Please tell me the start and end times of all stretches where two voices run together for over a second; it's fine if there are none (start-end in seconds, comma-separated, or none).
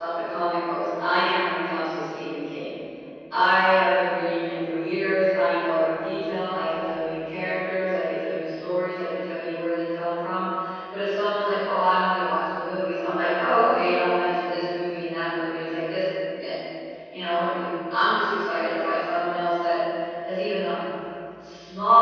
none